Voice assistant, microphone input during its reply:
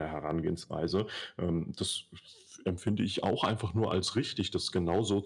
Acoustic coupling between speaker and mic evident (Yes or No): Yes